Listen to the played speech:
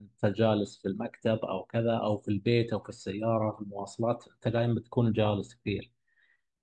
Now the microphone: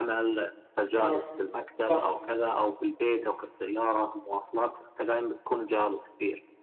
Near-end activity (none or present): present